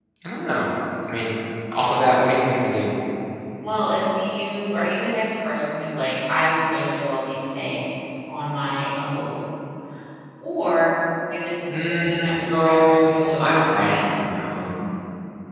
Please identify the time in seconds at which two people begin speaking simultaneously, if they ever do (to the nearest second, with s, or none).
12 s